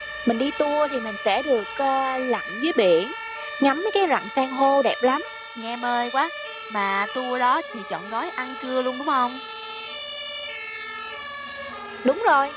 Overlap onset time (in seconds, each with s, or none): none